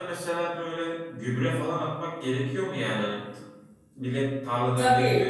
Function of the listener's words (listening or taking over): taking over